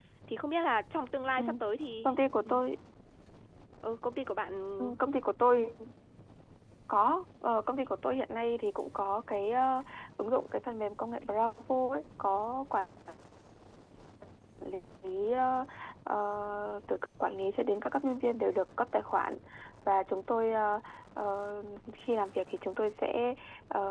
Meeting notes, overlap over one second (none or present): none